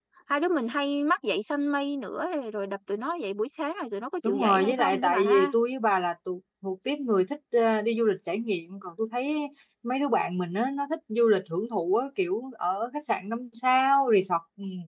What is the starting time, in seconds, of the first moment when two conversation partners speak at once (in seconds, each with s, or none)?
4.2 s